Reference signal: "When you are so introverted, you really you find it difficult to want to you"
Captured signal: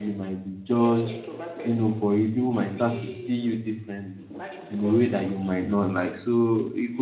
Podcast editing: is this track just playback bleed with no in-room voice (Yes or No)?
No